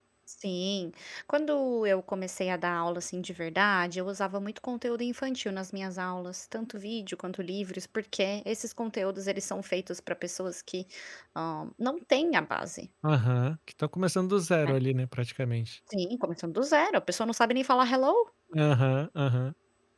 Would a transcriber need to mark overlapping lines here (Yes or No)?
No